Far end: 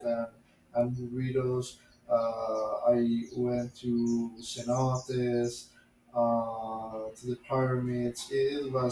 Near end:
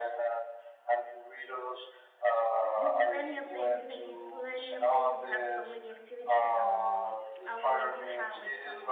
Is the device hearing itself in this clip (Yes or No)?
Yes